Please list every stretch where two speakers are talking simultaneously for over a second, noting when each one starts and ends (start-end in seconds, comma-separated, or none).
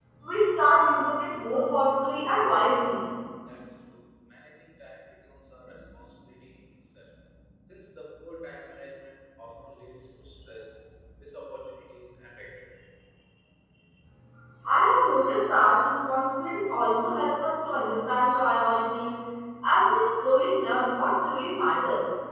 none